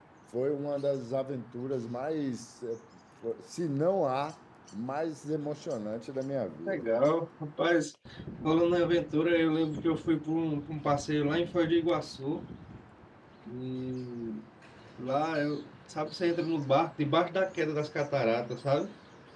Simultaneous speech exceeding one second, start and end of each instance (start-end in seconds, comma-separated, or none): none